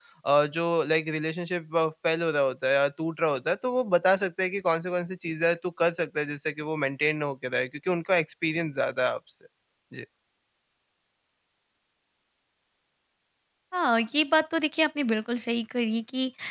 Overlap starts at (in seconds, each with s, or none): none